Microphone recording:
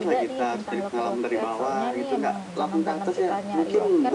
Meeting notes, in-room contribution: present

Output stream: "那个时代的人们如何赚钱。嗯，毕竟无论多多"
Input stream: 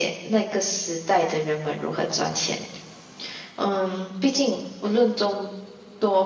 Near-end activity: none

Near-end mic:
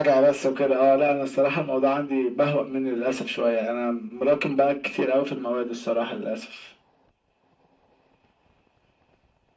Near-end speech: none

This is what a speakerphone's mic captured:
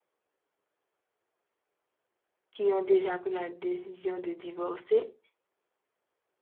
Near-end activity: present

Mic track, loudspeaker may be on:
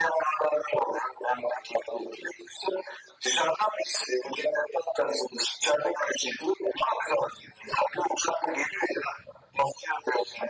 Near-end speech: none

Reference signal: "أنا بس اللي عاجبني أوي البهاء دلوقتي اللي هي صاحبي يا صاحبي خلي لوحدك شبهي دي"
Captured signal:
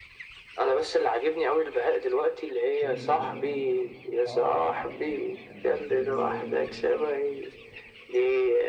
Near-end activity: present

